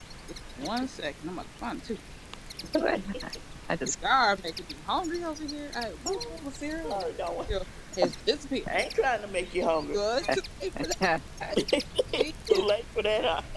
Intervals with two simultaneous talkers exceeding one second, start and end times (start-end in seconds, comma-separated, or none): none